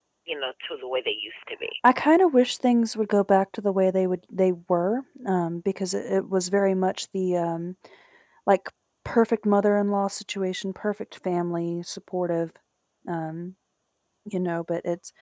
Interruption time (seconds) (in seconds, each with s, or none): none